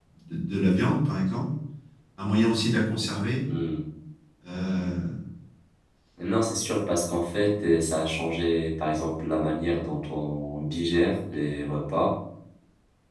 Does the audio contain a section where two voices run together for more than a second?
No

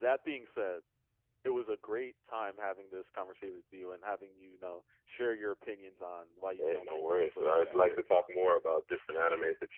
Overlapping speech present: Yes, from 6.6 s

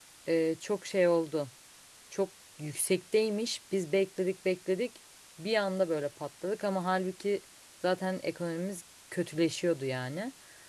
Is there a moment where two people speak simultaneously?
No

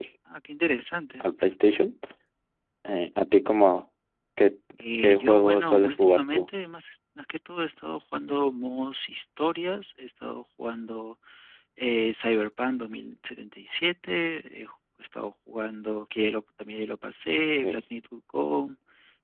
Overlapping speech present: Yes, from 5.0 s

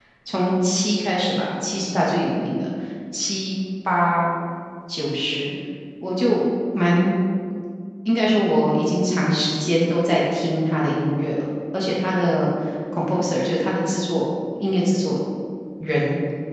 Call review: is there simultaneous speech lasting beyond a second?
No

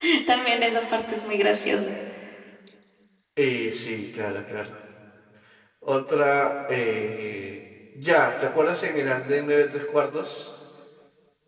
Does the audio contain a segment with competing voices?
No

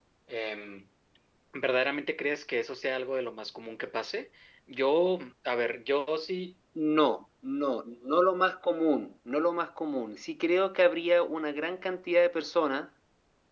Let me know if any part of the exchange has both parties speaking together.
No

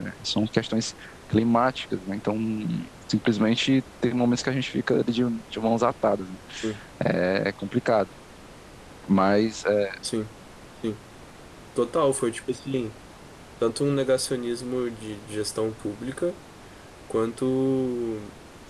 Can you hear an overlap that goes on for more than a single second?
No

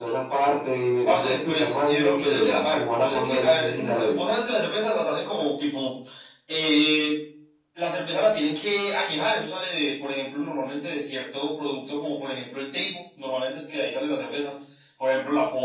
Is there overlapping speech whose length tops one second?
Yes, from 1.1 s

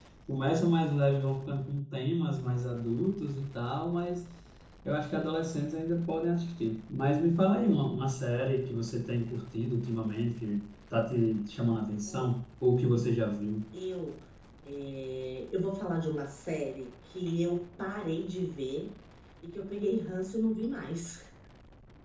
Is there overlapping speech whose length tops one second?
No

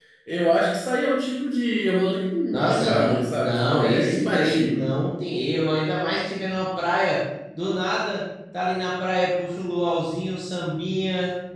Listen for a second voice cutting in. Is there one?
Yes, from 2.5 s

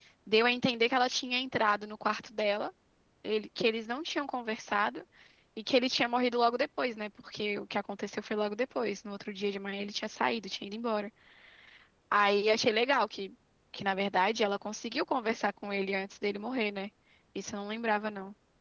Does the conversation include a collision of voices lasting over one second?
No

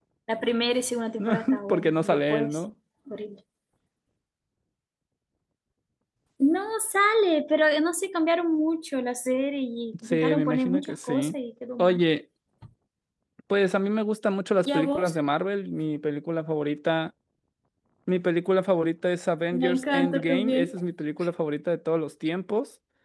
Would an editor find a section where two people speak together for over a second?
Yes, from 1.2 s

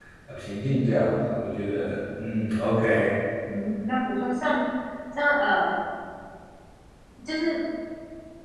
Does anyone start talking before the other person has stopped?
No

